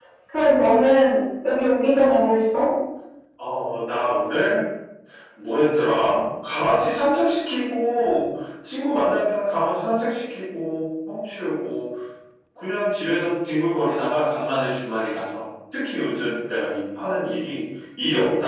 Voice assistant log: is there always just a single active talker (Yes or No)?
Yes